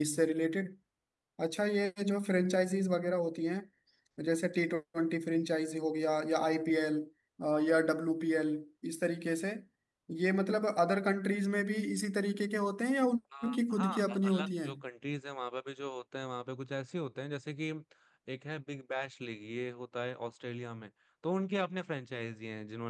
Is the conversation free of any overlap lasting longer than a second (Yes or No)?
No